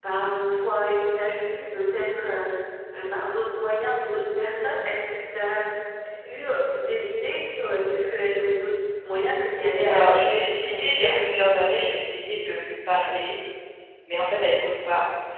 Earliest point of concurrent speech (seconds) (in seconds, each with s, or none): 9.9 s